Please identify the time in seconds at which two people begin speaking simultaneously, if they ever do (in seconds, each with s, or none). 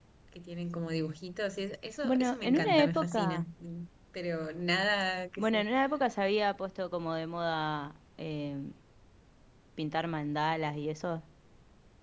2.0 s